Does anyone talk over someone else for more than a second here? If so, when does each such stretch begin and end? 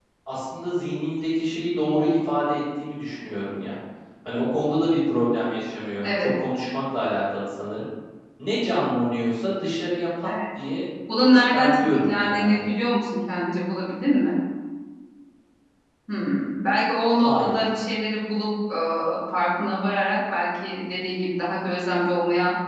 11.3-12.7

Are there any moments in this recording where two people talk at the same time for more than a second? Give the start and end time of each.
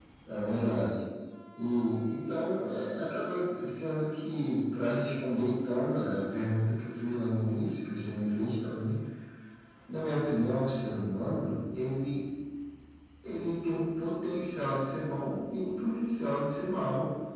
none

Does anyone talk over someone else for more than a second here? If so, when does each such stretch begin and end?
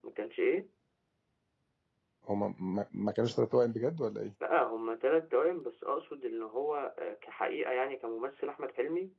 none

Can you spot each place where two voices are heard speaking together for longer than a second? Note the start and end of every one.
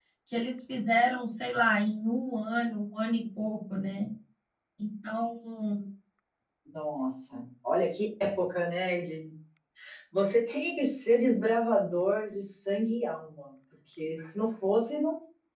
none

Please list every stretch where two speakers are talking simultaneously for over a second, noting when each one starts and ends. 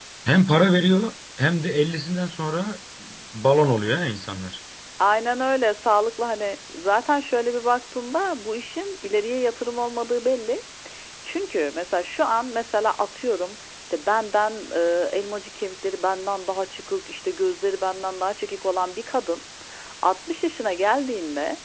none

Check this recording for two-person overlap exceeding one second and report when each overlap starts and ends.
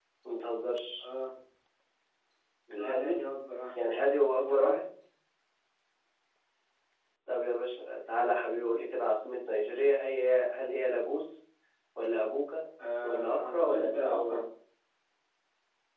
13.0-14.4

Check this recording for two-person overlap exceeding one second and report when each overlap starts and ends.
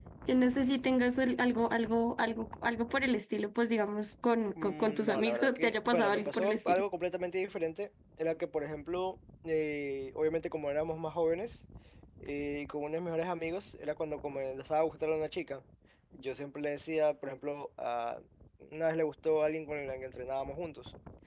4.6-6.8

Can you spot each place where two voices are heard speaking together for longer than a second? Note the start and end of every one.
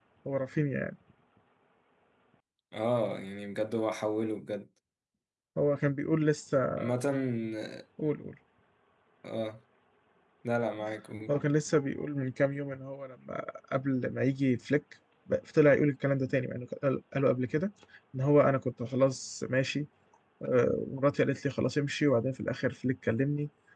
none

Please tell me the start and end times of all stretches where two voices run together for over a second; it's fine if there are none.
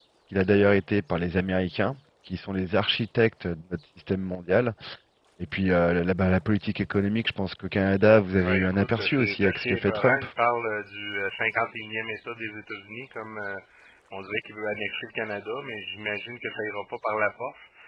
8.4-10.2

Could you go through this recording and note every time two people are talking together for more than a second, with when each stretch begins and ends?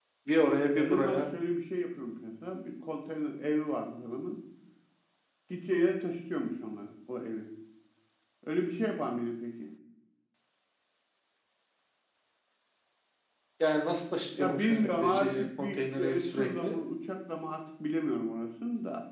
14.4-16.8

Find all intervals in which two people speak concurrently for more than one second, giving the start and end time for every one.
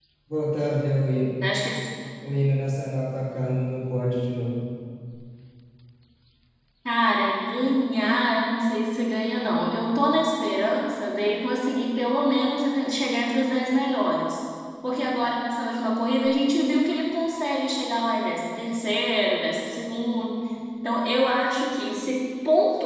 none

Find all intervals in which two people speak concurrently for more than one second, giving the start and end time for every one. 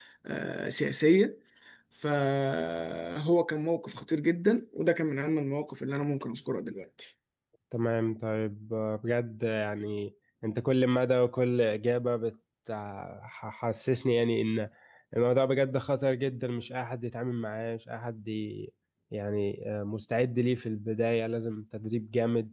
none

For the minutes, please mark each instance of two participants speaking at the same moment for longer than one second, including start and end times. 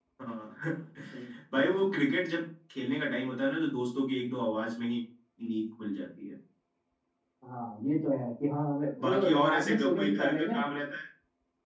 9.0-10.6

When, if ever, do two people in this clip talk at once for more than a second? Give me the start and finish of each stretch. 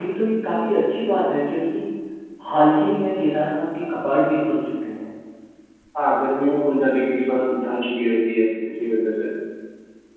none

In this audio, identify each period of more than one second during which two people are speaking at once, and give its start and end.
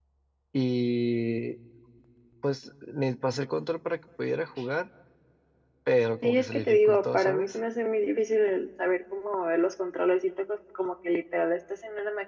6.2-7.5

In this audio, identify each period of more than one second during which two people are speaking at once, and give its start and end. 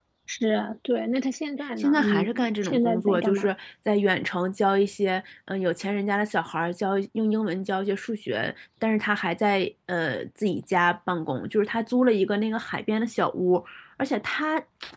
1.8-3.5

